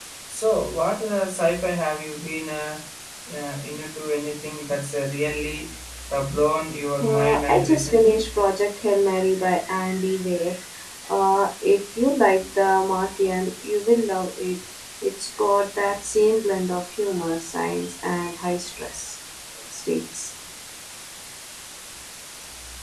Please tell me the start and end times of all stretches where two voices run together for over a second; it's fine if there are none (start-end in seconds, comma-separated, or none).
7.0-8.2